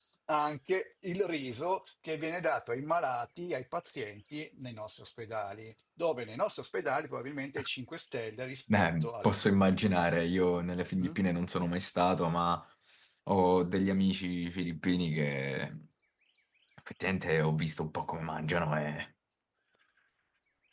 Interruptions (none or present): present